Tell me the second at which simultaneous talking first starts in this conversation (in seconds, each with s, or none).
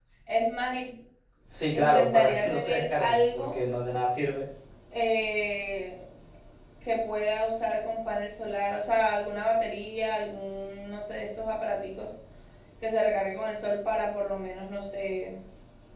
1.7 s